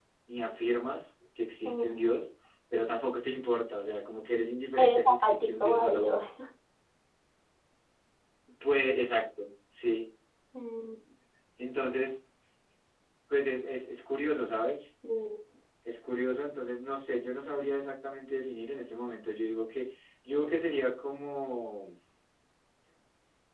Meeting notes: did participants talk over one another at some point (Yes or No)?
Yes